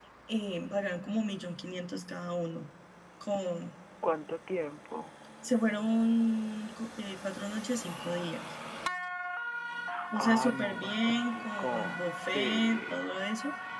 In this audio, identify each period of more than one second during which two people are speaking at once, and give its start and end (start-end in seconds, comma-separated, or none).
10.2-13.0